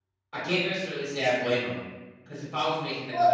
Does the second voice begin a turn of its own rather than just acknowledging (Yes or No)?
No